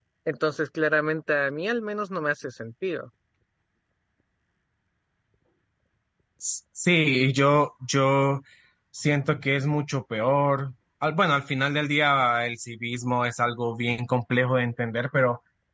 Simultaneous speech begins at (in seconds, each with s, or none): none